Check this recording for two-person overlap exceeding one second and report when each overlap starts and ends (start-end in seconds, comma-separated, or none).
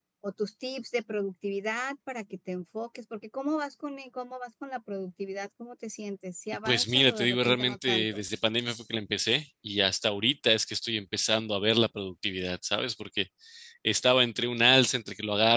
6.7-8.2